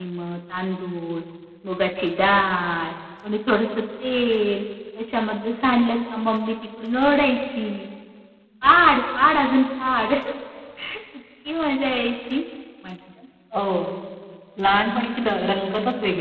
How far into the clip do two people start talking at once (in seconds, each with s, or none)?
none